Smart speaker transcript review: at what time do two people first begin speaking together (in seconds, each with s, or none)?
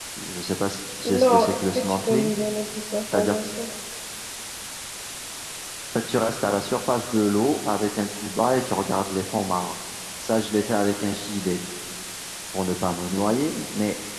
1.1 s